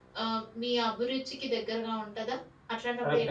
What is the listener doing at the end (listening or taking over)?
taking over